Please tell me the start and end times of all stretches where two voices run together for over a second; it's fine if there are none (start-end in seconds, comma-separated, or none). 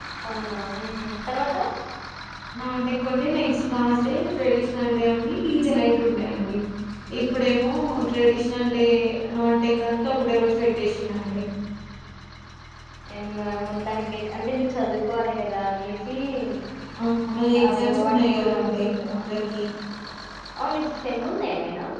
17.7-18.9